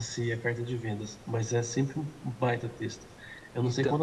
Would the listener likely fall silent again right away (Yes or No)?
Yes